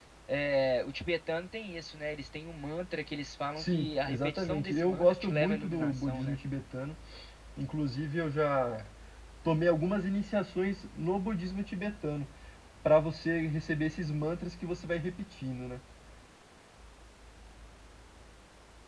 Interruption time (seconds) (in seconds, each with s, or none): 3.5 s